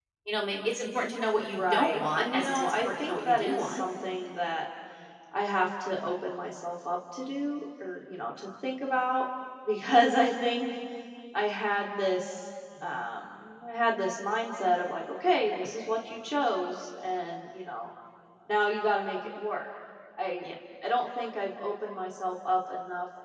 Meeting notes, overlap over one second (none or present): present